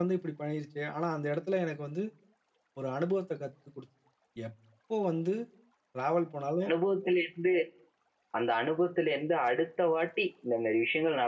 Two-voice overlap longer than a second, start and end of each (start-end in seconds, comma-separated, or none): none